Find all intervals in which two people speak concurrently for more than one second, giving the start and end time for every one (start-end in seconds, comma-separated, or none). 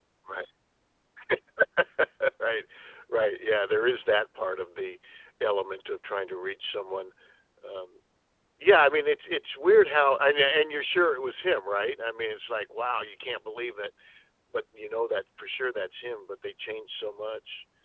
none